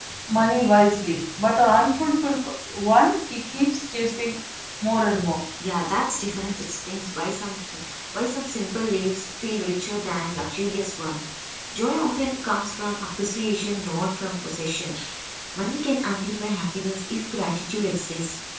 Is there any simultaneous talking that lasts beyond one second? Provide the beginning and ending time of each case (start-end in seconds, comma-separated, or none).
none